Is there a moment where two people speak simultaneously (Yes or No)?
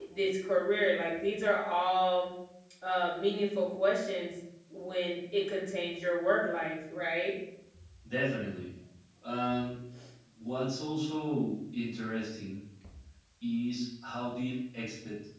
No